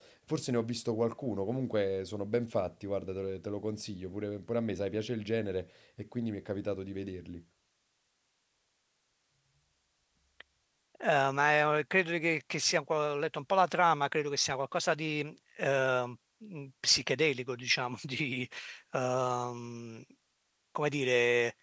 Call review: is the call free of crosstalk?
Yes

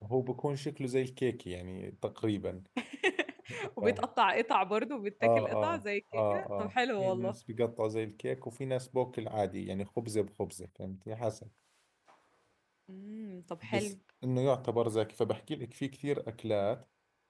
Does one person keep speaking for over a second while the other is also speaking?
Yes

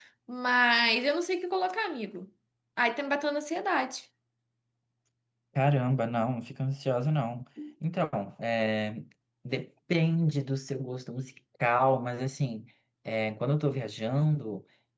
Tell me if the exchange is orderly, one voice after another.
Yes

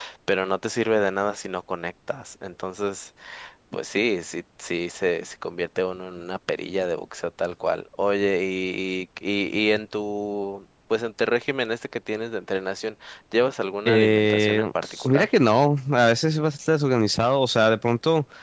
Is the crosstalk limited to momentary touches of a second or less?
No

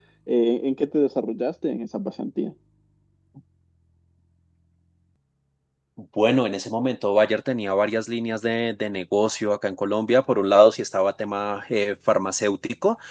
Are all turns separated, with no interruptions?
Yes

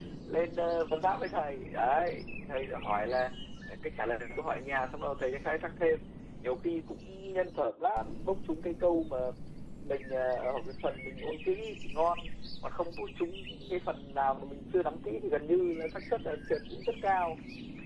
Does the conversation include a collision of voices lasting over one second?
No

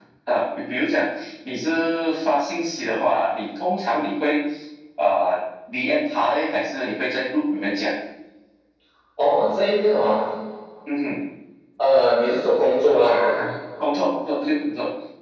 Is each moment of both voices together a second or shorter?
Yes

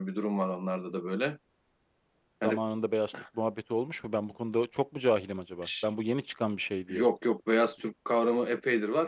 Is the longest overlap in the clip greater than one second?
No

